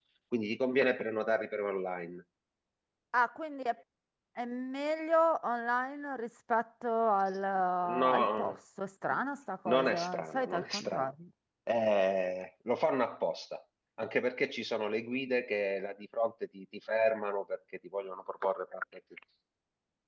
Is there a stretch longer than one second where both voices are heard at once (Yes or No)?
Yes